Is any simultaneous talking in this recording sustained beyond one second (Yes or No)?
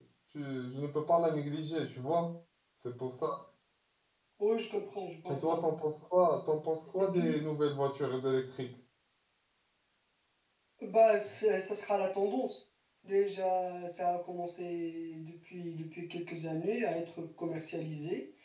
No